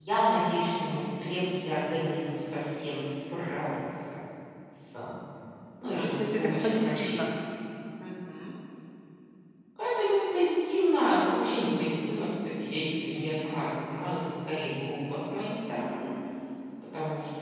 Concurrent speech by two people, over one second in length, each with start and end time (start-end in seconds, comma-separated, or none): 5.8-7.2